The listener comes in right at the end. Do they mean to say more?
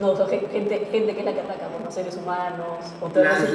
Yes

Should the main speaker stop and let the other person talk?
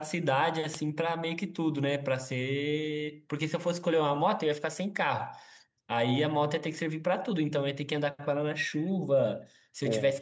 No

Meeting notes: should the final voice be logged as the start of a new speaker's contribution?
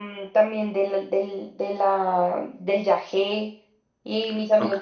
No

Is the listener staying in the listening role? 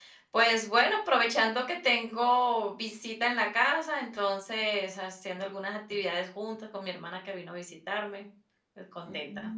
No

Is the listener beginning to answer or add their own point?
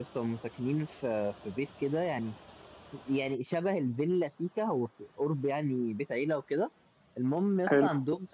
No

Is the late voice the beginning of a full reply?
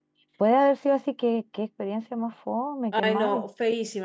Yes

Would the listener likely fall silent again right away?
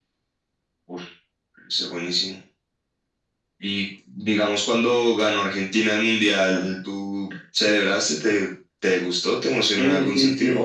No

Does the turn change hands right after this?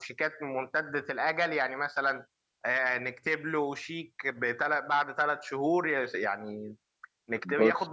No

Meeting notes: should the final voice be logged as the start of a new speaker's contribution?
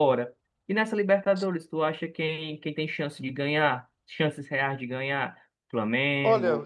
No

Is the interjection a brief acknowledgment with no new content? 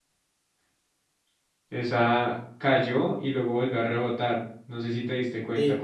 No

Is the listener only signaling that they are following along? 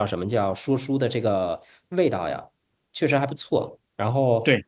No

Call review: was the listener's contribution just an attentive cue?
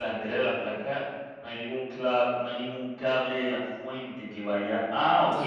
Yes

